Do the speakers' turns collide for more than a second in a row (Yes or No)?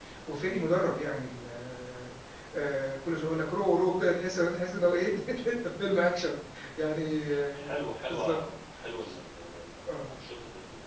No